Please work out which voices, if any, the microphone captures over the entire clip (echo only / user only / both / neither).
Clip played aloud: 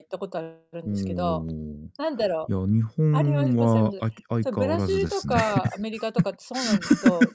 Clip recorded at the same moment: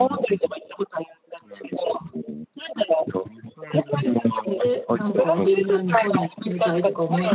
both